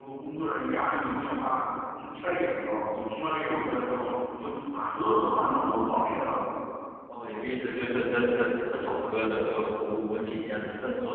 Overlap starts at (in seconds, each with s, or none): none